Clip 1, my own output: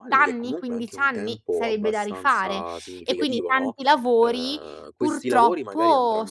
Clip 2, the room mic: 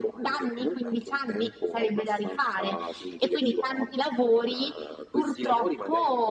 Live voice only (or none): none